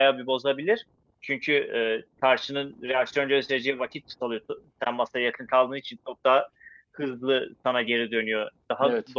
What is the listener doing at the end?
listening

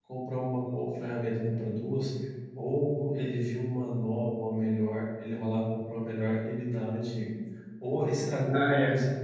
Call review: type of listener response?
listening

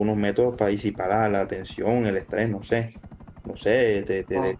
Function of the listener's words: listening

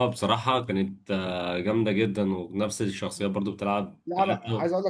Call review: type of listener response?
taking over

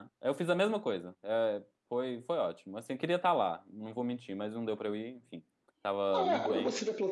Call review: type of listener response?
taking over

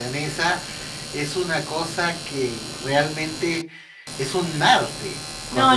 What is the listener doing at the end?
taking over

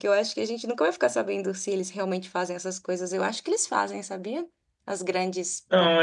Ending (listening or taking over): taking over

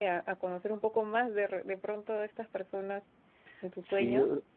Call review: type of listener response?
taking over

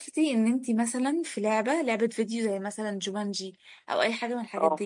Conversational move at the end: listening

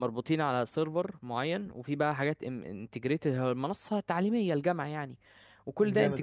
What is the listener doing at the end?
listening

